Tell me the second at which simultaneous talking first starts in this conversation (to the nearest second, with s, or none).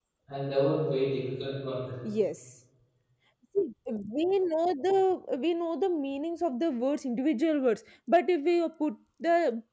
none